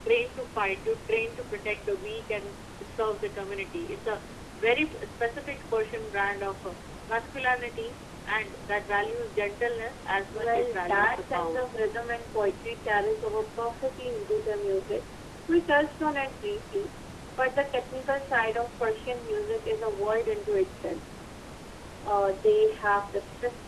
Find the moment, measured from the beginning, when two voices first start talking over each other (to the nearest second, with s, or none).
10 s